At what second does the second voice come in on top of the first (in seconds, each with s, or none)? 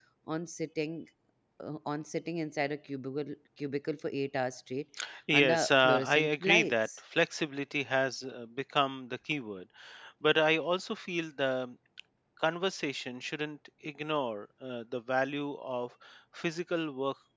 5.3 s